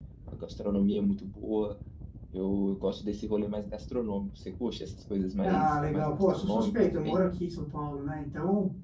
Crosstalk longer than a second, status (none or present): present